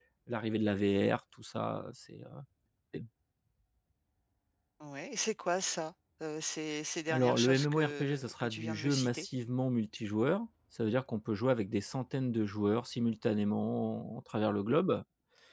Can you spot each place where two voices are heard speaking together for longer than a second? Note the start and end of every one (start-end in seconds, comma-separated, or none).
7.1-9.3